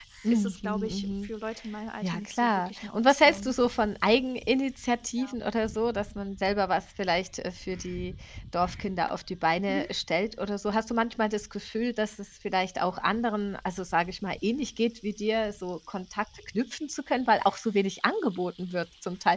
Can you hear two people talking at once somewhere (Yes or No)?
Yes